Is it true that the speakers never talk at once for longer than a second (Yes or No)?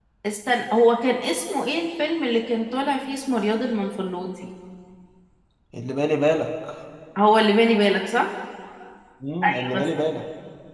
Yes